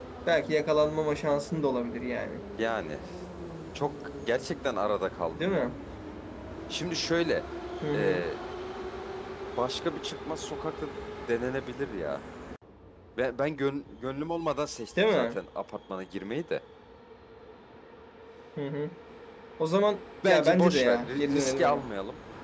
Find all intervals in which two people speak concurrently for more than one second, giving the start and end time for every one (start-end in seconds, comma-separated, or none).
20.2-21.8